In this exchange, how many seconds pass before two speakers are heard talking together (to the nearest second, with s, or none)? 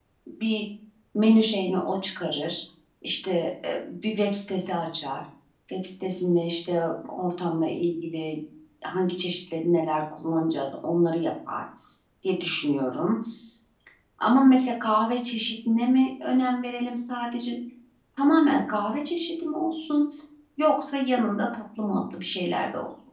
none